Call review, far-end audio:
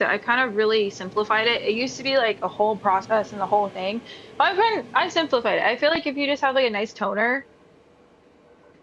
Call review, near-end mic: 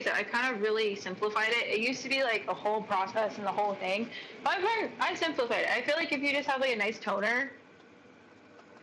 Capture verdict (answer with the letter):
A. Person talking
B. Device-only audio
B